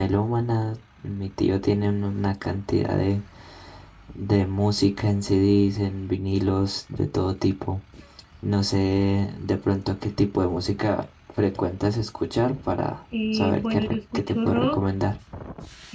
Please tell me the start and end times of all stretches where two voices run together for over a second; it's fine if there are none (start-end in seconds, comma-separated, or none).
13.3-14.8